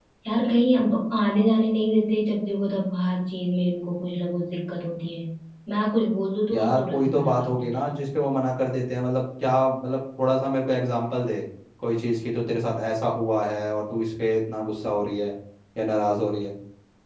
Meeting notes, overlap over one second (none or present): present